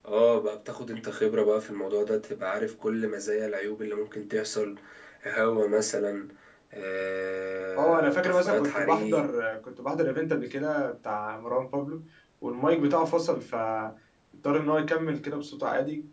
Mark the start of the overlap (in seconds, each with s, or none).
7.8 s